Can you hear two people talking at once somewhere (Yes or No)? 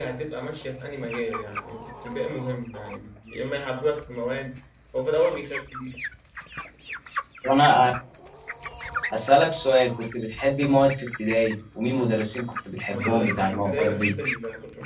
Yes